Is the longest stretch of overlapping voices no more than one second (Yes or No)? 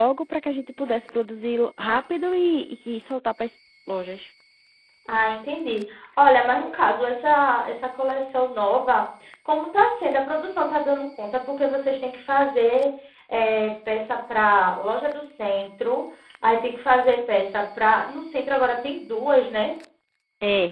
Yes